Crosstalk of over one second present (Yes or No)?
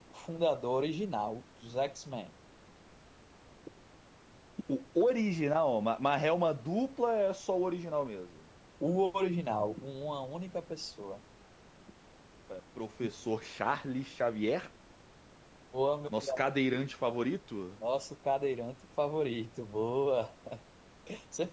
No